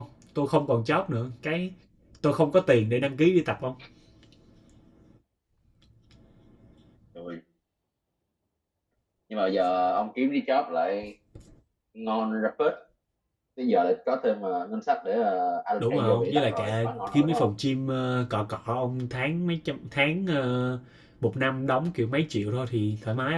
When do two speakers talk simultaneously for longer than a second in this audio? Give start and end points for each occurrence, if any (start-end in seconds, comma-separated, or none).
15.8-17.5